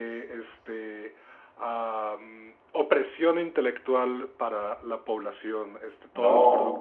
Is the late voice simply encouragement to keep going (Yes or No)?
Yes